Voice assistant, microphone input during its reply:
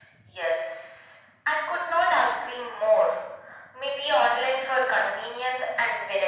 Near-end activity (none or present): none